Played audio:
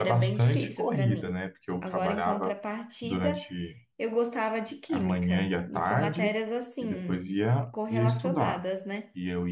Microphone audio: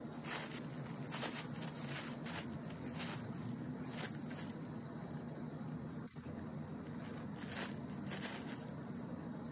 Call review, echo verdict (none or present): none